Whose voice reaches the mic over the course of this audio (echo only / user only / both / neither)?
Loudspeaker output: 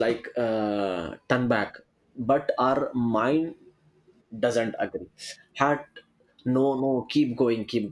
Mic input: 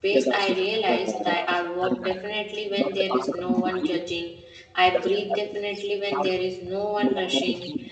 both